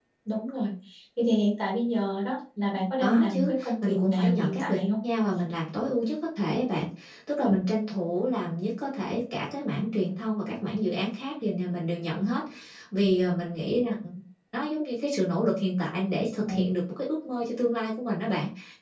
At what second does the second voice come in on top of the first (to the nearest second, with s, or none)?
3 s